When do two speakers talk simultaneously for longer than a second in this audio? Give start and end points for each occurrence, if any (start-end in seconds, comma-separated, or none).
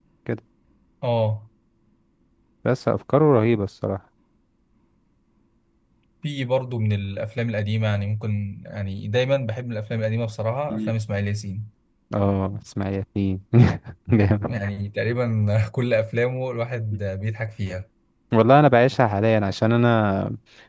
none